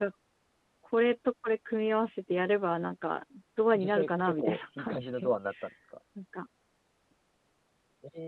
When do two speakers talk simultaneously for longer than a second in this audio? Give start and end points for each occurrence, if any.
3.8-5.3

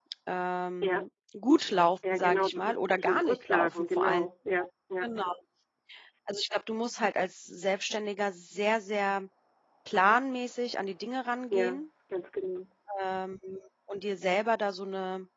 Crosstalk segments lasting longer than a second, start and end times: 2.1-4.2

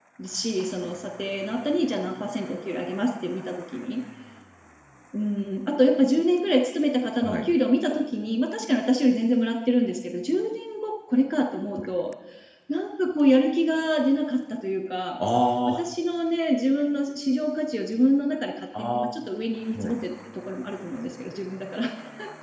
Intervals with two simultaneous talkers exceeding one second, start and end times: none

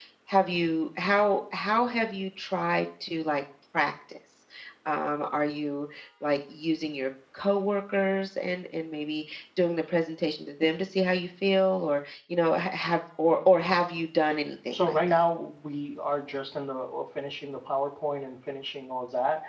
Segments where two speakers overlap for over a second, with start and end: none

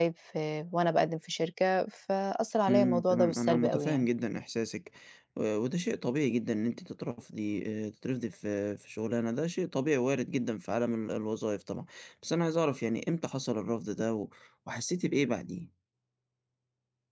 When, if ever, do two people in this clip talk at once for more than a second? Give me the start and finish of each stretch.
2.7-4.1

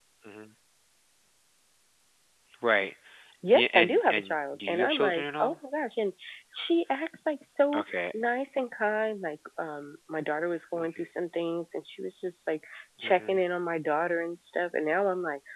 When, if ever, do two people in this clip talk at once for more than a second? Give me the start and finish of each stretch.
3.5-5.5

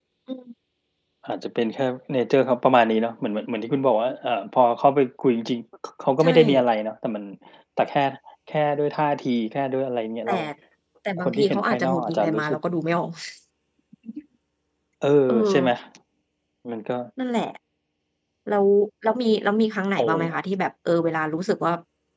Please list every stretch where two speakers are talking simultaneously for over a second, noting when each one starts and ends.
11.2-12.6

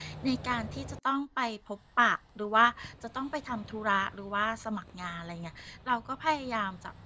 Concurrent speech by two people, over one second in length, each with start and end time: none

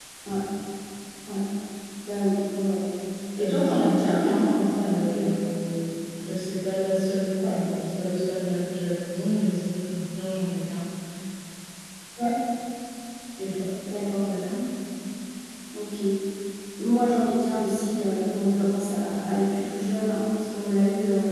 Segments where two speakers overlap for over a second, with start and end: 3.4-5.3

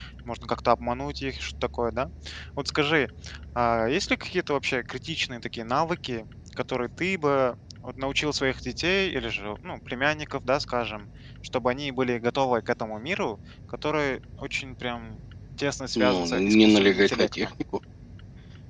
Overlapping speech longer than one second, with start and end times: 15.9-17.5

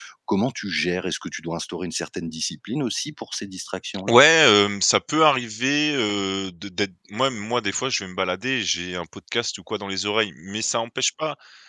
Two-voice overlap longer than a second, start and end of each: none

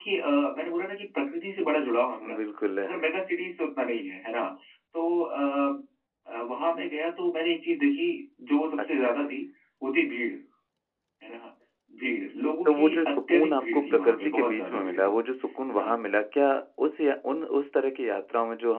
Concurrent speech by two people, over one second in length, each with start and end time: 12.6-15.1

